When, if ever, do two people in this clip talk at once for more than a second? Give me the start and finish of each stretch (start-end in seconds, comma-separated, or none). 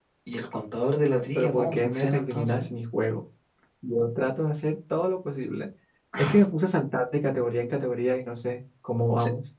1.4-2.6